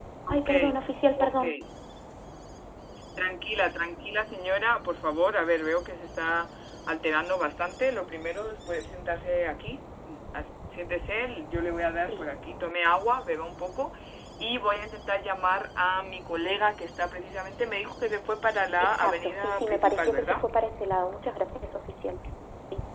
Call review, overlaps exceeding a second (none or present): present